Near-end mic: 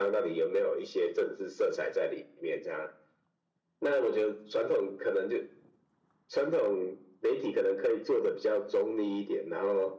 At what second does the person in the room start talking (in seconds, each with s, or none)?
none